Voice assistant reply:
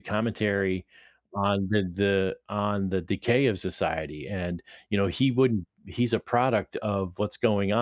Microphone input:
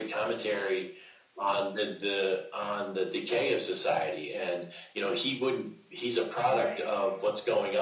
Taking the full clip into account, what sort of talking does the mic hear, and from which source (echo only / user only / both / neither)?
both